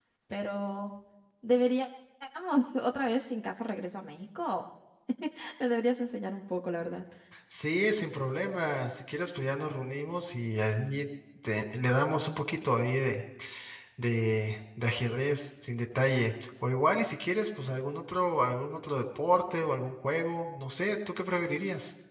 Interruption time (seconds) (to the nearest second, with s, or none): none